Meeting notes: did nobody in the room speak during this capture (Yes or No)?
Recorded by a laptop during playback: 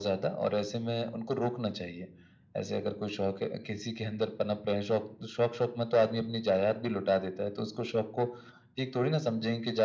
Yes